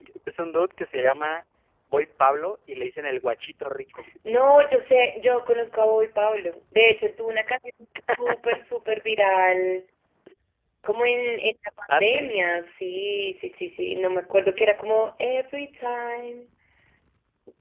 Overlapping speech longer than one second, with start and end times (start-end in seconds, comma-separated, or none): none